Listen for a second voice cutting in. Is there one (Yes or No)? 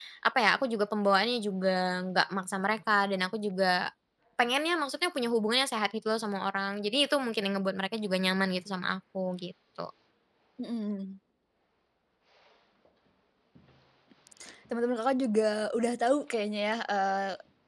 No